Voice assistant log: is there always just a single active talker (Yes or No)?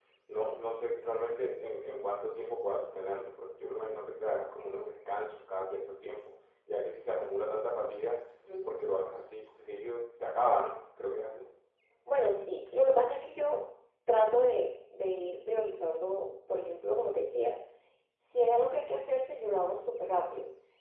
Yes